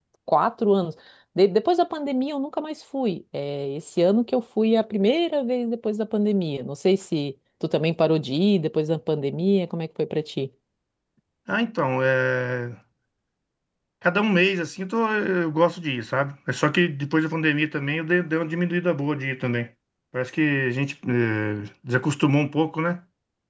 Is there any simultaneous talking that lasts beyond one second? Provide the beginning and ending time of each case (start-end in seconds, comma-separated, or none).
none